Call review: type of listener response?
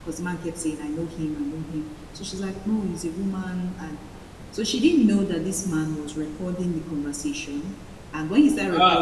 listening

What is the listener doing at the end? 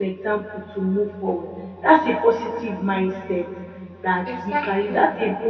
listening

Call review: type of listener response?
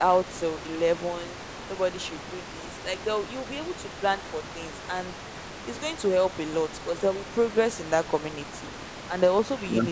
listening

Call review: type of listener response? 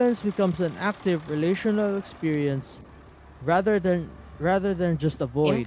taking over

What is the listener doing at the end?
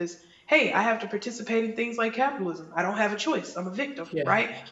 listening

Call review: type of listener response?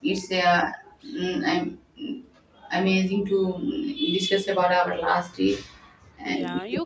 taking over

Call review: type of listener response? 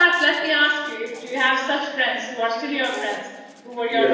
taking over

